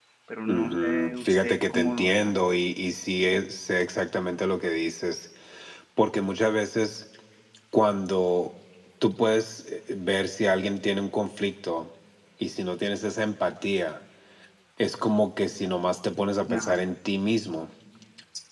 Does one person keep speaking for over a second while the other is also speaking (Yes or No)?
Yes